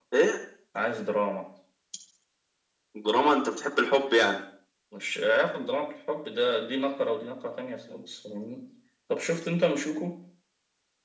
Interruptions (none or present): none